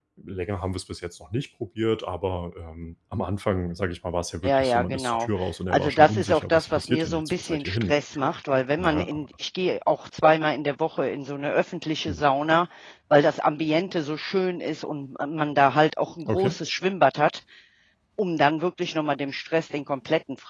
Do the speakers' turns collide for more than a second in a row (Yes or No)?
Yes